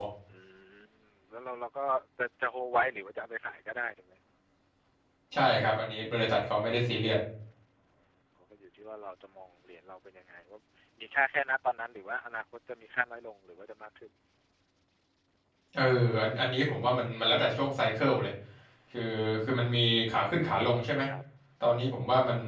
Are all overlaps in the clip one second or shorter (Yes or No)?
Yes